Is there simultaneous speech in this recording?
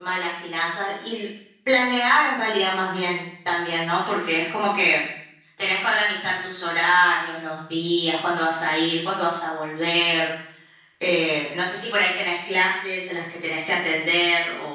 No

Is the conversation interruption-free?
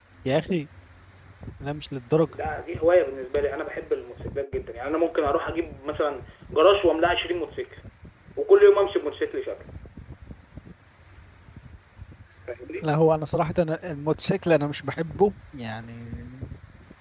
Yes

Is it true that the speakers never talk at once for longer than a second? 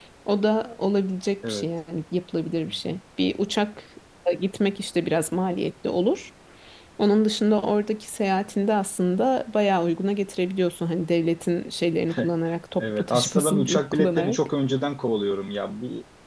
No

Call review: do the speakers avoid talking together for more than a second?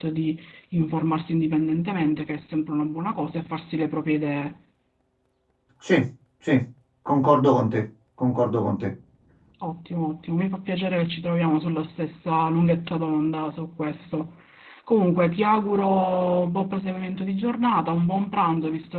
Yes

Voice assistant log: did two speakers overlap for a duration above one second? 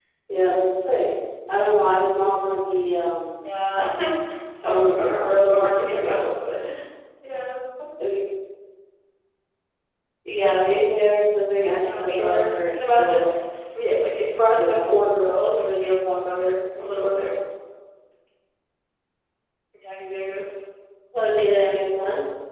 Yes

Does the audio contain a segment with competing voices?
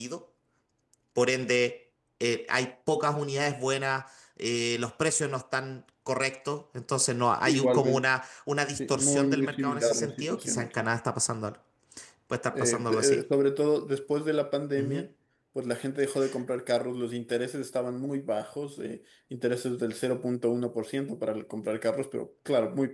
Yes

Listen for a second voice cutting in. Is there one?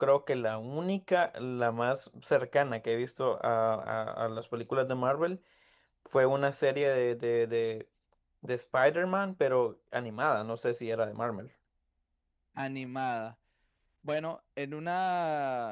No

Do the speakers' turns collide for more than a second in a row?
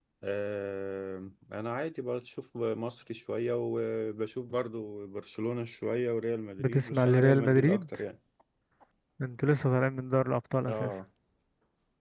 Yes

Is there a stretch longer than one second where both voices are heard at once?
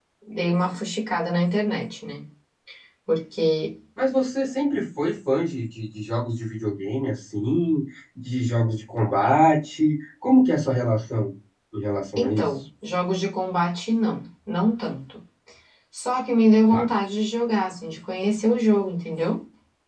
No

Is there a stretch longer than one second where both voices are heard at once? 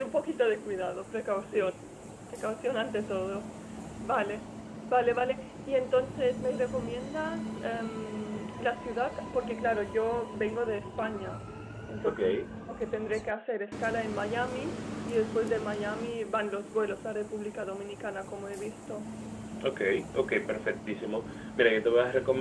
No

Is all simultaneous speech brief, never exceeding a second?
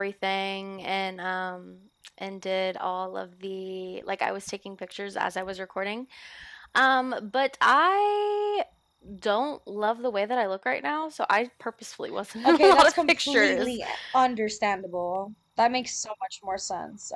No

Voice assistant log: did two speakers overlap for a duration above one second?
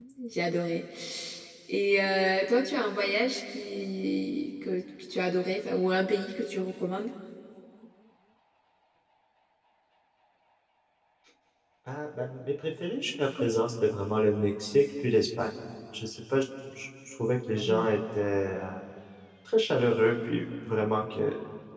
No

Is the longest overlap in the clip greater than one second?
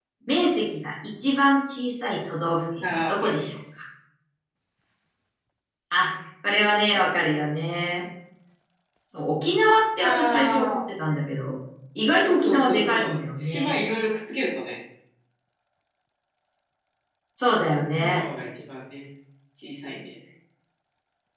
Yes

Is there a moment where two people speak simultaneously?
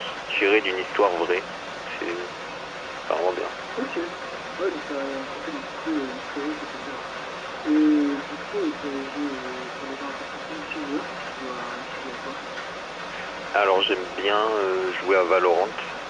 No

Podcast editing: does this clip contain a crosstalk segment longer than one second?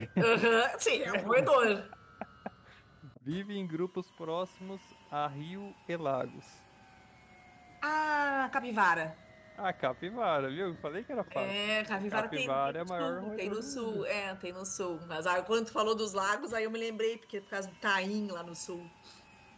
Yes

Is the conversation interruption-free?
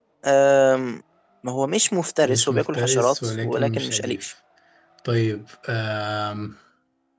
No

